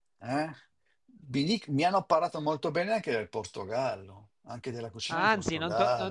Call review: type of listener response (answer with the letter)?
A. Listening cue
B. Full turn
B